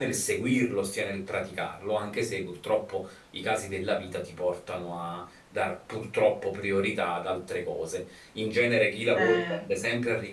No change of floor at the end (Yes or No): Yes